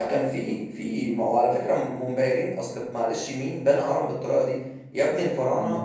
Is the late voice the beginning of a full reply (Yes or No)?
No